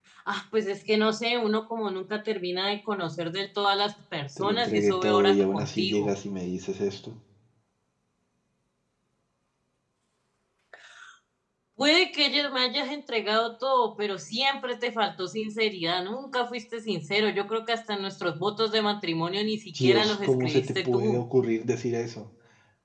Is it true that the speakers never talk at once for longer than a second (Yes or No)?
No